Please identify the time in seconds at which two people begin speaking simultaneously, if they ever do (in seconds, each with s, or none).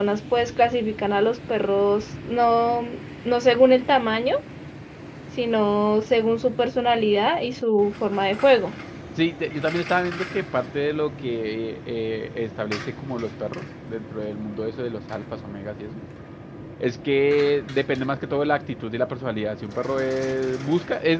none